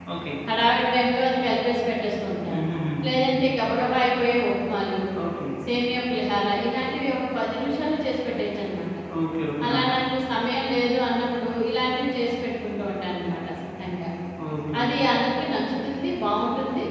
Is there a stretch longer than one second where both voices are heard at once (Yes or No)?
No